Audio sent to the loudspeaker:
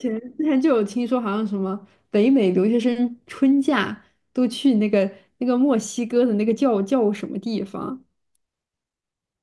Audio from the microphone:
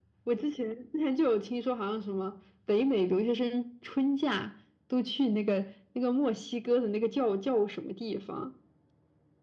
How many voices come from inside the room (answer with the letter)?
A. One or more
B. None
B